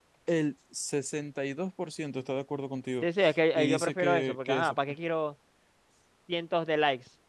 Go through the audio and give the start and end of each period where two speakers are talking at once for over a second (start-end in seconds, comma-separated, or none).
3.5-4.8